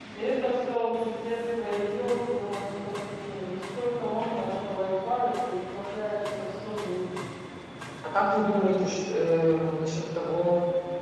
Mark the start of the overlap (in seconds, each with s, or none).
none